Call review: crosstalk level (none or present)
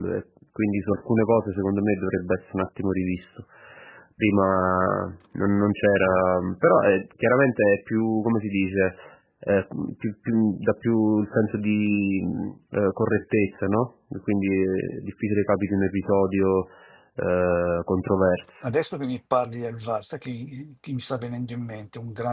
none